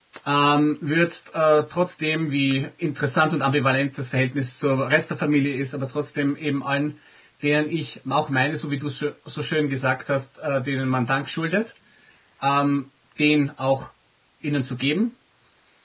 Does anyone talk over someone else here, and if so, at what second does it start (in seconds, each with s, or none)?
none